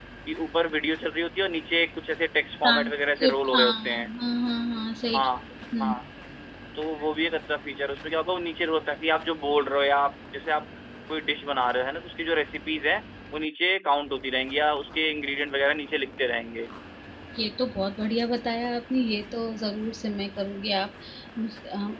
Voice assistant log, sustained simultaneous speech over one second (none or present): present